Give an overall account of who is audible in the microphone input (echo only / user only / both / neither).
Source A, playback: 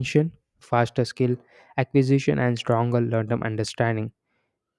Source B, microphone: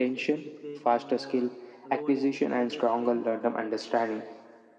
both